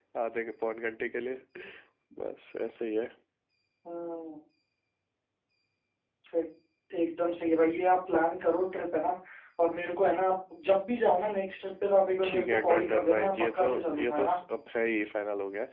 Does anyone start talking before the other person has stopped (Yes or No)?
Yes